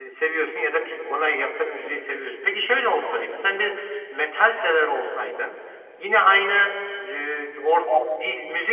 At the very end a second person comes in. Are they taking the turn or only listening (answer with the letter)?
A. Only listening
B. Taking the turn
A